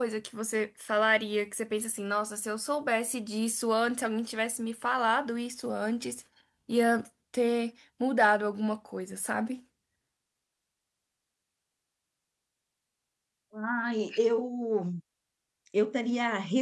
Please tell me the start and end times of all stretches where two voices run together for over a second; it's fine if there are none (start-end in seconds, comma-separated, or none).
none